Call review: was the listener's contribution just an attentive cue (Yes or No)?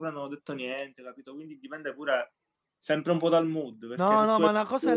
No